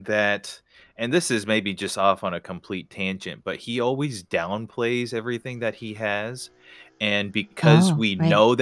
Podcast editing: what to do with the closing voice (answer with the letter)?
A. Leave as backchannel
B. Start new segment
A